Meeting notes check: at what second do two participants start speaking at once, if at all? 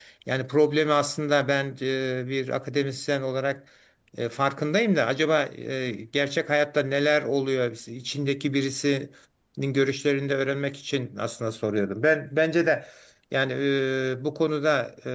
none

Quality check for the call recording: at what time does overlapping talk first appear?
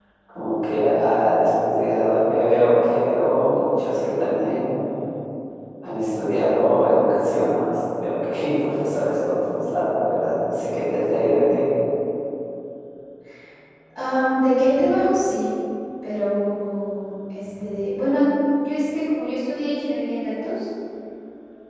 none

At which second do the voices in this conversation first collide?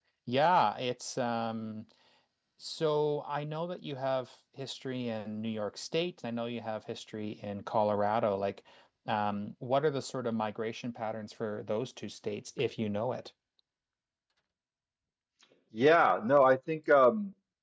none

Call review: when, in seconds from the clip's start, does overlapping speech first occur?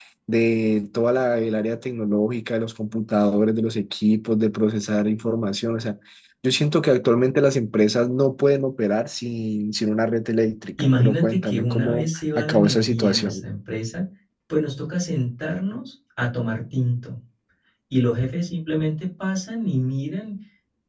10.8 s

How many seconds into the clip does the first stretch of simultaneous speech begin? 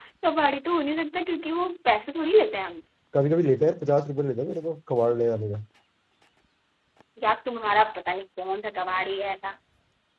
none

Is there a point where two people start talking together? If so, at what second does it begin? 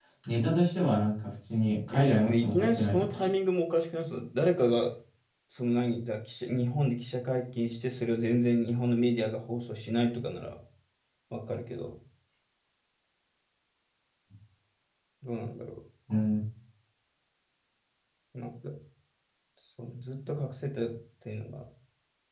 1.9 s

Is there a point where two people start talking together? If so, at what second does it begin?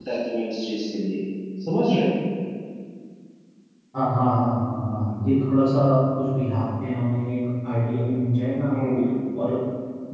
none

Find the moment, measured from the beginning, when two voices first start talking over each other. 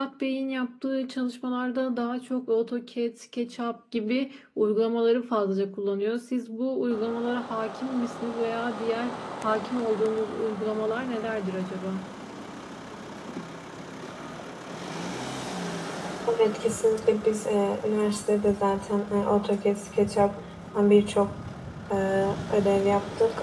none

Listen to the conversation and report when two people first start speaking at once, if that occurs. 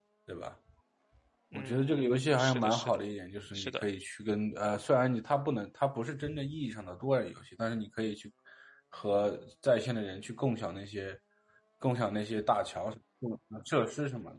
1.5 s

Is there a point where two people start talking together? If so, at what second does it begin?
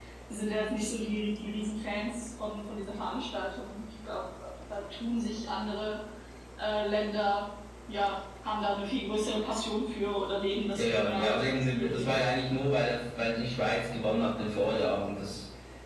10.8 s

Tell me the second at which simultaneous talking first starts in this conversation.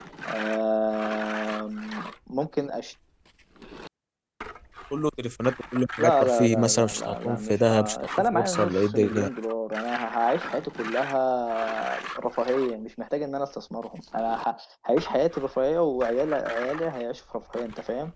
6.0 s

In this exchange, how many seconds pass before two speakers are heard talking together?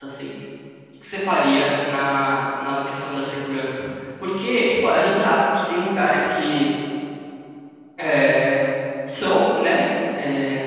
none

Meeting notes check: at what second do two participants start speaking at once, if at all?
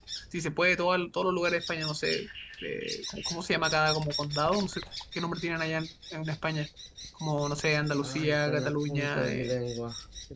8.0 s

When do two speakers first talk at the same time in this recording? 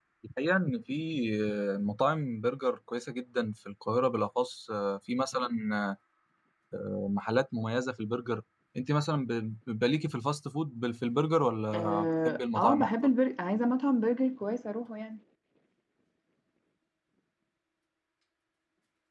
11.7 s

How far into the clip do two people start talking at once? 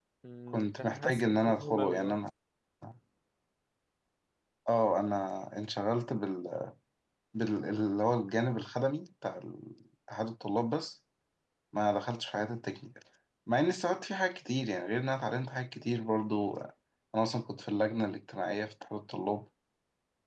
0.5 s

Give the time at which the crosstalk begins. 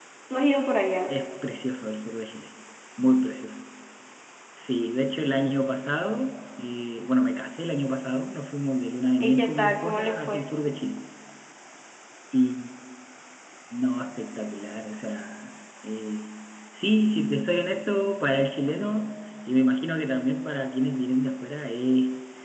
9.2 s

